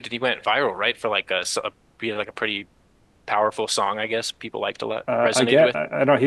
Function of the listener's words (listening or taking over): taking over